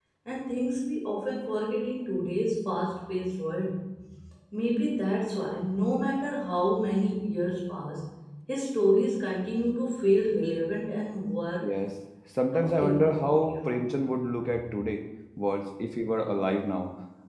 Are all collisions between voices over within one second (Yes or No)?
No